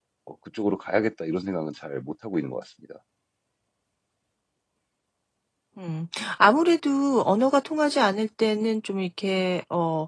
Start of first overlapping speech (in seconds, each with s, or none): none